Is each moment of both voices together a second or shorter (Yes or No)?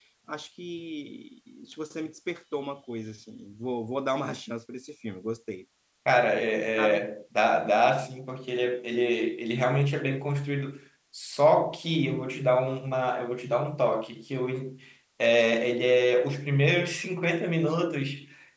Yes